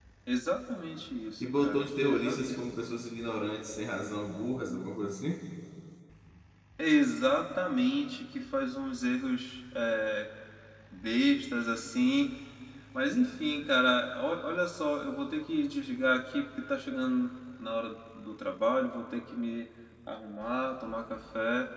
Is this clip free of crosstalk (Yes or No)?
No